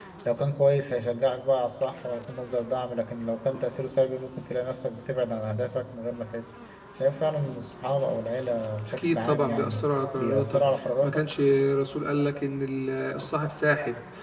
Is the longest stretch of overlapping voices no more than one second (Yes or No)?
No